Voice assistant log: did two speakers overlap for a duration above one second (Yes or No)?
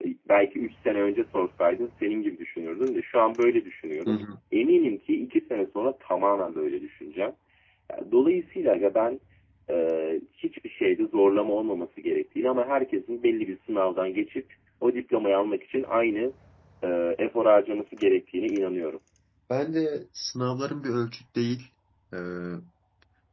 No